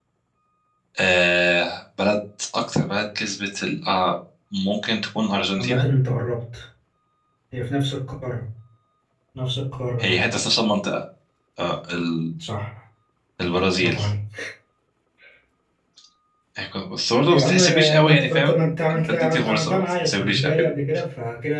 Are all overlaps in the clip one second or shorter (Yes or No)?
No